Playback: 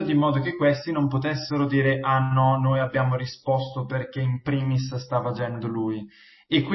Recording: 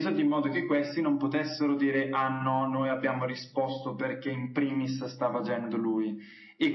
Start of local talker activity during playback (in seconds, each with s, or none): none